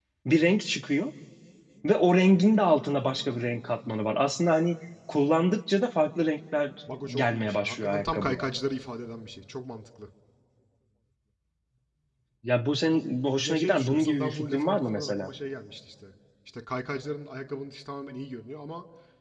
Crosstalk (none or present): present